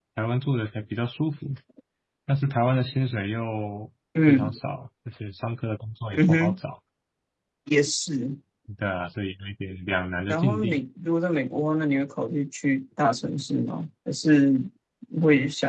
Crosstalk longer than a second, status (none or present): none